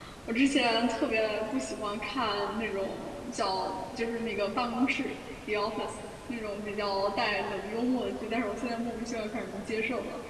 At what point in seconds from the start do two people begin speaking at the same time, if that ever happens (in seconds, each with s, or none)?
none